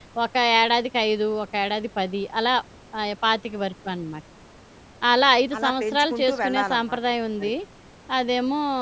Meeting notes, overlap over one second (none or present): present